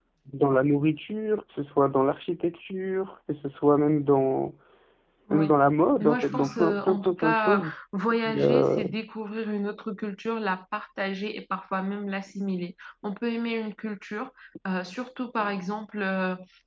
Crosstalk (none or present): present